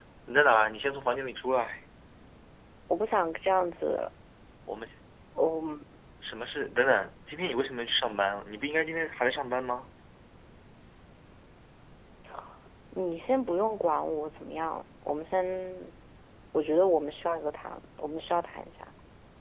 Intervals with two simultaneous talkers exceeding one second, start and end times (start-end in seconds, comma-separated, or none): none